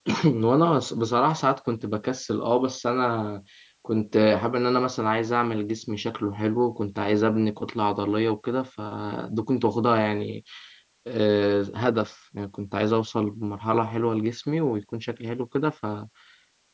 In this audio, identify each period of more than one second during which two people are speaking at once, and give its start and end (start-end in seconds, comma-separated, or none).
none